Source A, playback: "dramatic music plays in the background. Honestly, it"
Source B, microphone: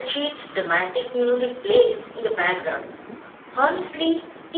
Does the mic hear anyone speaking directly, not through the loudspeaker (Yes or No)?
No